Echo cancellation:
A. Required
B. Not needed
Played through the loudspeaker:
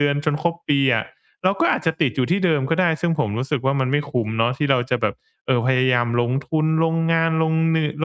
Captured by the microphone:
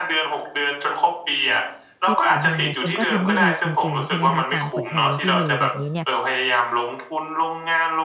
A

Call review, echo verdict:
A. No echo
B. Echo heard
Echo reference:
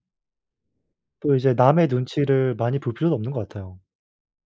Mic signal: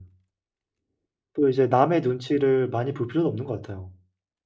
B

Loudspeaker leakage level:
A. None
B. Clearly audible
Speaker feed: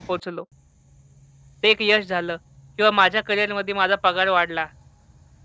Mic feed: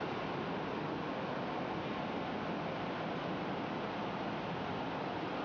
A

